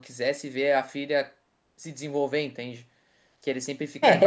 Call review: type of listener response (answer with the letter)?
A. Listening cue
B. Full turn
B